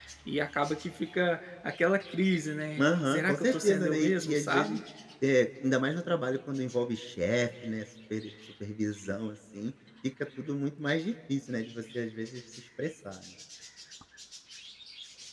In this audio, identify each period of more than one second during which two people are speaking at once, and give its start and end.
2.8-4.8

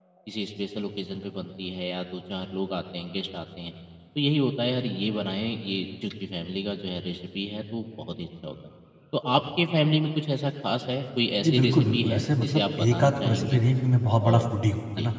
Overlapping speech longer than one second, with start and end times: 11.4-13.6

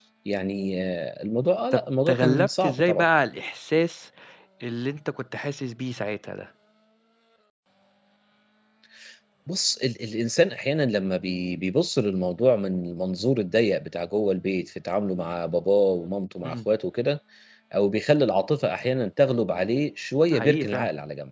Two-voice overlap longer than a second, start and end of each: 1.7-3.0

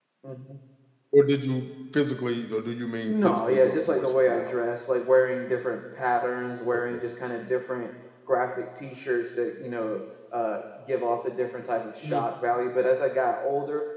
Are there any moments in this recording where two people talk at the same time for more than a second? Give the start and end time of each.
3.0-4.6

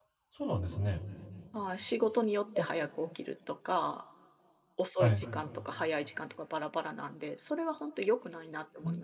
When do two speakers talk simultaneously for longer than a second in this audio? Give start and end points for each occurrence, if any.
none

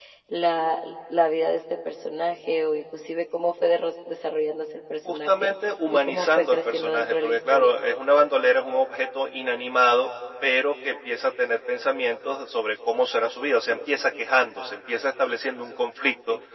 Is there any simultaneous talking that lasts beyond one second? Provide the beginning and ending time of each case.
6.1-7.7

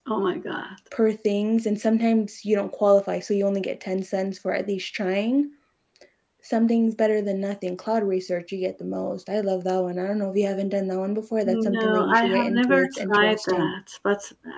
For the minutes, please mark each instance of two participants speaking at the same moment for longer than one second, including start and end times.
11.4-13.7

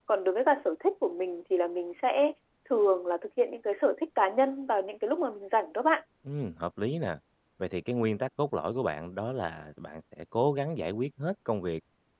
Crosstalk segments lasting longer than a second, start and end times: none

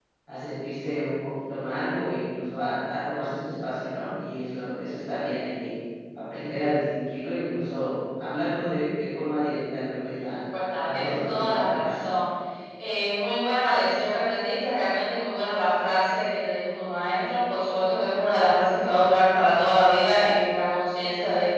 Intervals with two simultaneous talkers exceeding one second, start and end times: 10.8-12.1

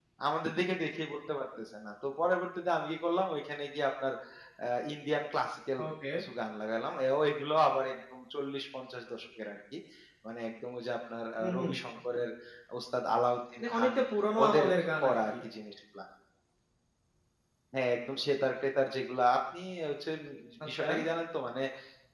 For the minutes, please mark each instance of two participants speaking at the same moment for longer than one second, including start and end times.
none

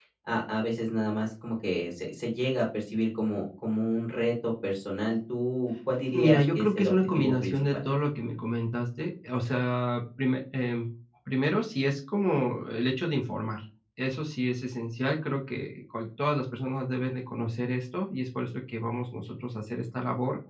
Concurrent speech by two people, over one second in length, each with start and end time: 6.1-7.6

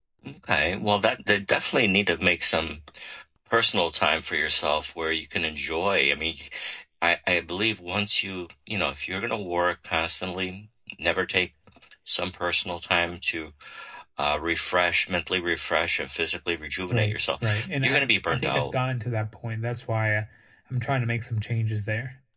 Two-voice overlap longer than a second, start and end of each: 16.9-18.7

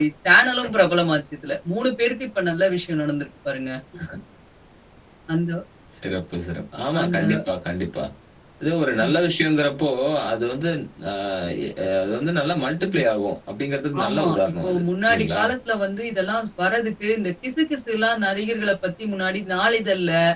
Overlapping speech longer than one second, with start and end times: 14.0-15.4

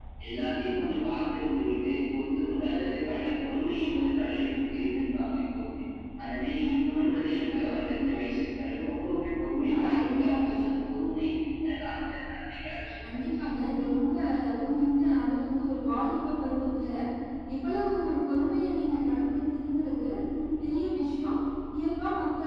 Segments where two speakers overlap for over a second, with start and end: 9.6-10.8

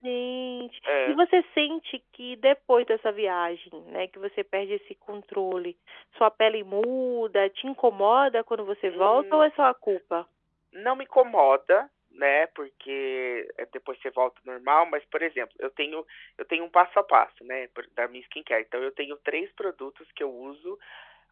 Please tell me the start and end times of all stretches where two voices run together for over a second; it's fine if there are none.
none

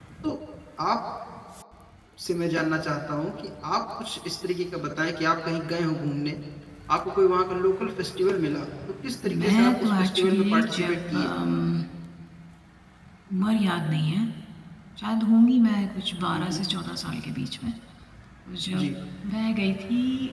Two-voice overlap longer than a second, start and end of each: 9.4-11.3

